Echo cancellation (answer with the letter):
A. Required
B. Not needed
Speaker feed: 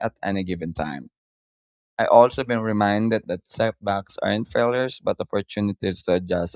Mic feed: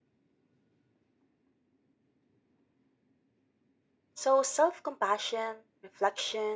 B